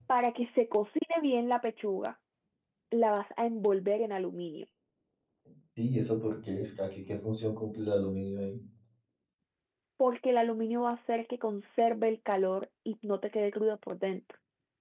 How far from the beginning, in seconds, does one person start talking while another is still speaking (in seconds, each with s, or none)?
none